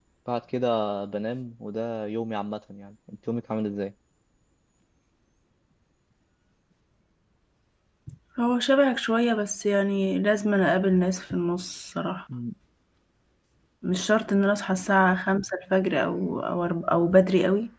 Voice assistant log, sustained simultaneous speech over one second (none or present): none